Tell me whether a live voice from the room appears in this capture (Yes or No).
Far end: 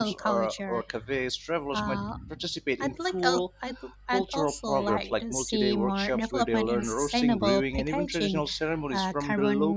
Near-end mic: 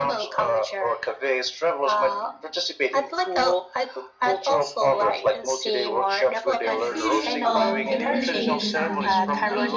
Yes